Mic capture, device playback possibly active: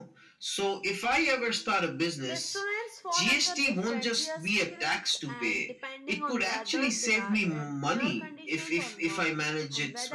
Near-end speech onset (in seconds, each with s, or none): 2.3 s